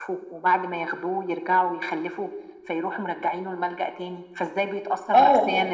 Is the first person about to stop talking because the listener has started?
Yes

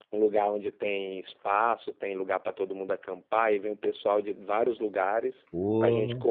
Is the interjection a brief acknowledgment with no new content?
Yes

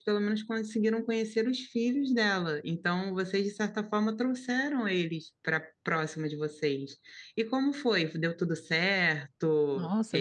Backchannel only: No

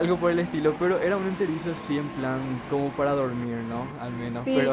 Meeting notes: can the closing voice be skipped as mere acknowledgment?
No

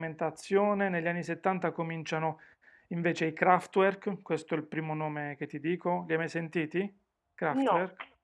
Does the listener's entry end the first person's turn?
Yes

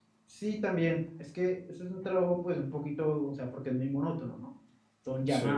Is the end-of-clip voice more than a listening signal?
No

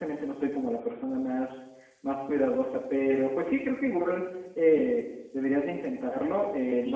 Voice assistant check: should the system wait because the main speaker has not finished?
Yes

